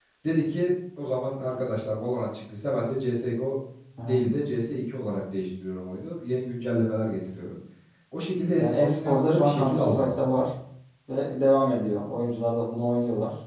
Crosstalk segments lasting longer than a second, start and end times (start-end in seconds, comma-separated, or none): 8.6-10.2